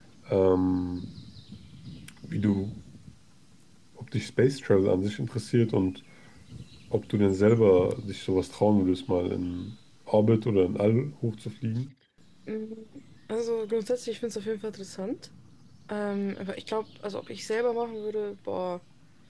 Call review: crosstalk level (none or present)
none